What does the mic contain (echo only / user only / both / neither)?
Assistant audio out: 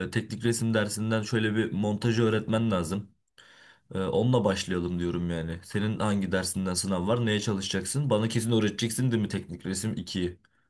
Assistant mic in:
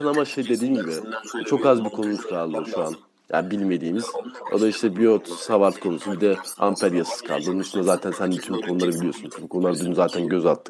both